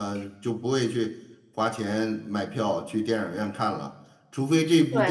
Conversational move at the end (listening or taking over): listening